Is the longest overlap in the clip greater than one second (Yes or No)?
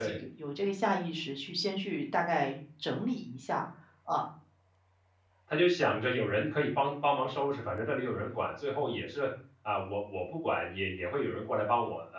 No